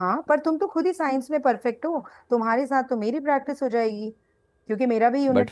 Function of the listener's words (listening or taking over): listening